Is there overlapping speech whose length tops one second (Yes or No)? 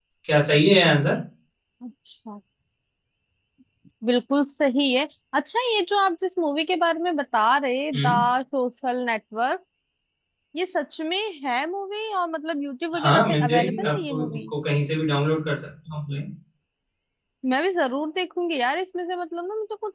Yes